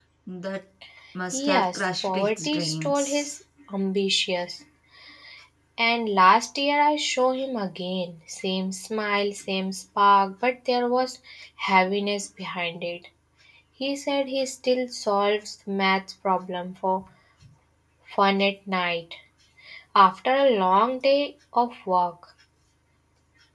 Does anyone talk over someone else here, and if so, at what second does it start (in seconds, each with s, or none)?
1.3 s